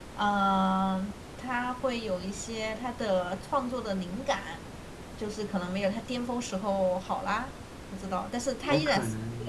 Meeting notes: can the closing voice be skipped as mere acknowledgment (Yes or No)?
No